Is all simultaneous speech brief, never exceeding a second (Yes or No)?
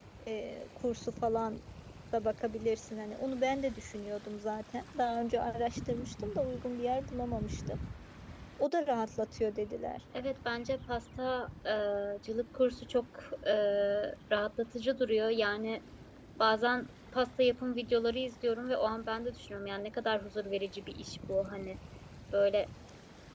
Yes